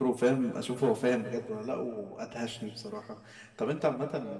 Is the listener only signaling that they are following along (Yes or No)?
Yes